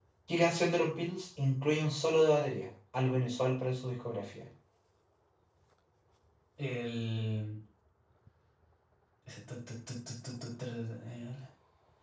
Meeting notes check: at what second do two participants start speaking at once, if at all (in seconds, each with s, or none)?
none